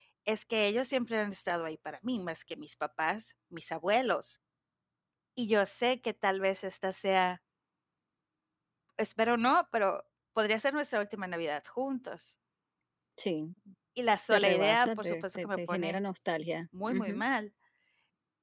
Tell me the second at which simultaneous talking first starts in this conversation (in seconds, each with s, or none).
14.3 s